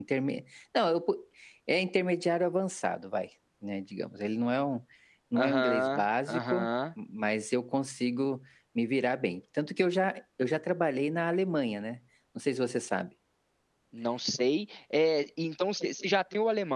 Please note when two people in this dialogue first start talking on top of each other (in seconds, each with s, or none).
5.4 s